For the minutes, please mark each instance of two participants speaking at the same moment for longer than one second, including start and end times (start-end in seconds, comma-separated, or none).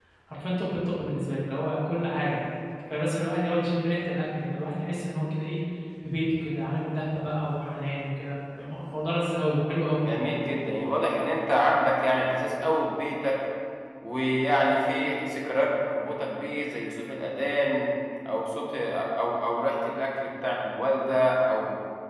none